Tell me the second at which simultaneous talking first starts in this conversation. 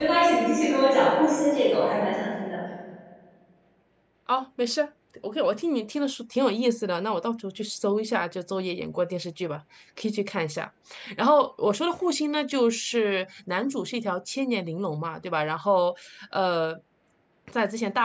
none

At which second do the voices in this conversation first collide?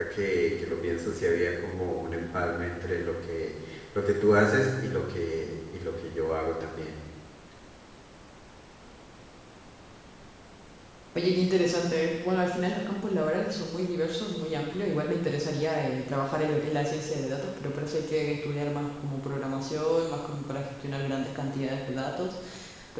none

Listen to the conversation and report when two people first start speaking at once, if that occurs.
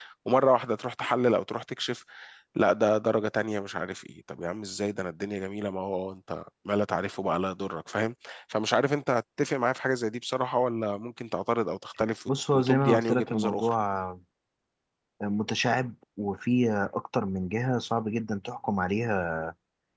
12.3 s

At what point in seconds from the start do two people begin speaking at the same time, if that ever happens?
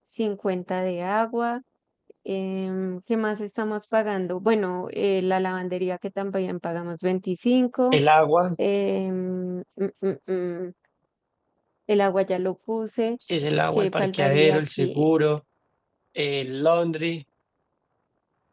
13.8 s

